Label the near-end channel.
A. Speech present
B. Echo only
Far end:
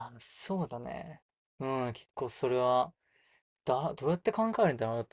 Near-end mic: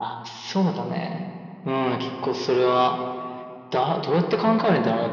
B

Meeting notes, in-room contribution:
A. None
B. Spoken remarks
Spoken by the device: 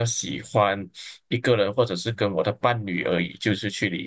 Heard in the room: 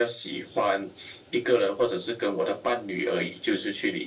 A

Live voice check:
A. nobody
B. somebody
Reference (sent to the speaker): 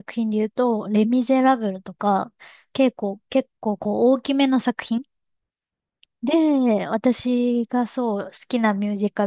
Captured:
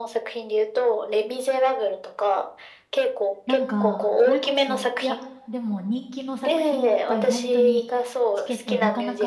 B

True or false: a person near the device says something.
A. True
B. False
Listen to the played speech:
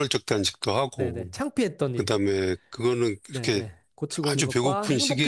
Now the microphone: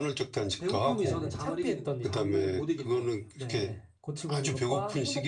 A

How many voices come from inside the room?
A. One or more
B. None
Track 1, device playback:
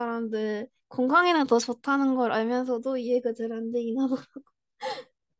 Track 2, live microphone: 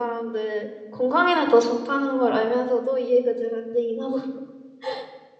B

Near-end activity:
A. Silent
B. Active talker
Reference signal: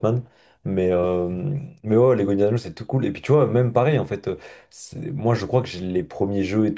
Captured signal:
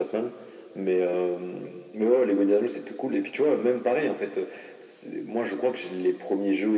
A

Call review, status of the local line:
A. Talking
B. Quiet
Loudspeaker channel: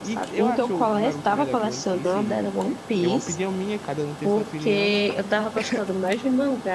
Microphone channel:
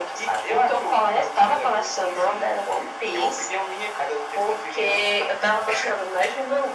B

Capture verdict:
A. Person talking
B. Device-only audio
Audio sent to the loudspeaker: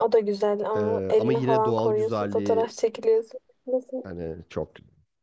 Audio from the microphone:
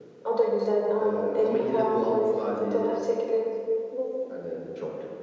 B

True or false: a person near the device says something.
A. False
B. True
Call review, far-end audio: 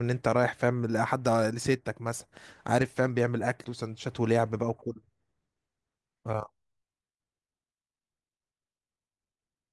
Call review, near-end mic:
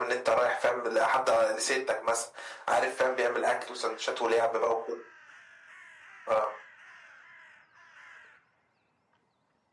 A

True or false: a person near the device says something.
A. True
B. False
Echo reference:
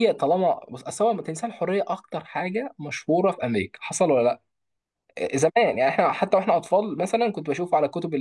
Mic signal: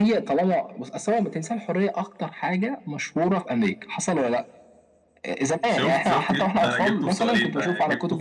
A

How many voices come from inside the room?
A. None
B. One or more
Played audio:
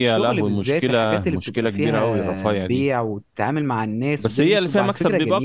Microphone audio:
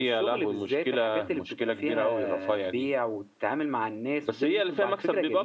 A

